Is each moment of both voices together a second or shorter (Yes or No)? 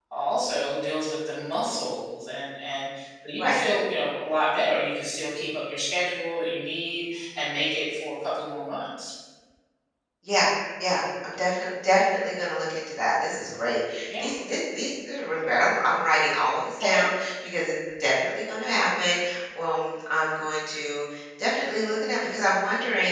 Yes